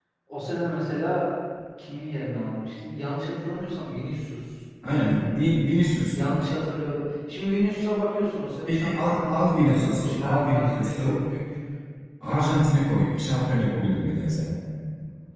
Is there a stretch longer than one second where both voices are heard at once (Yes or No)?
Yes